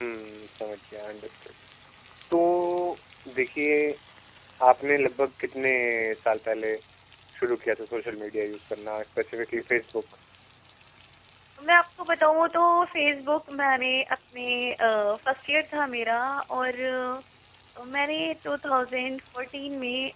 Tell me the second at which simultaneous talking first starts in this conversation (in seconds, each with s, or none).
none